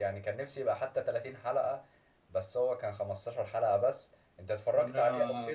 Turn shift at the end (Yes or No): Yes